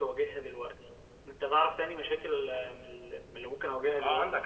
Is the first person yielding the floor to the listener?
Yes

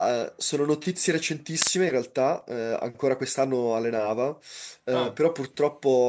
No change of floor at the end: Yes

